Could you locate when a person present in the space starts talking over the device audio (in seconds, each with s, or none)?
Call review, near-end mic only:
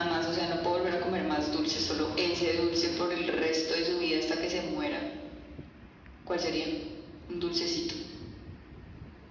none